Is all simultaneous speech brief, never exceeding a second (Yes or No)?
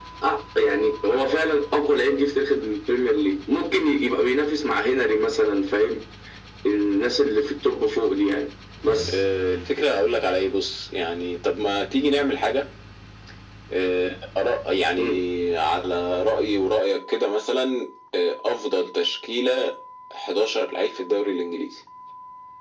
Yes